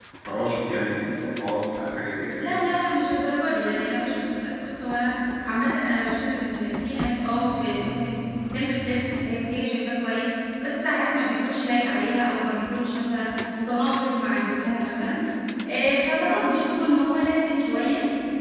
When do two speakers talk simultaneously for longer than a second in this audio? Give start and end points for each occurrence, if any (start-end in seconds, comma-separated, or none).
none